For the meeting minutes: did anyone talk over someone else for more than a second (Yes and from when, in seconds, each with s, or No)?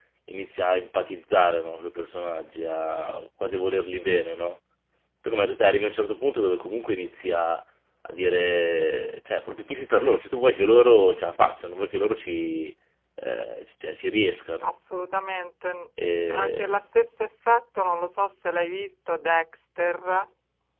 No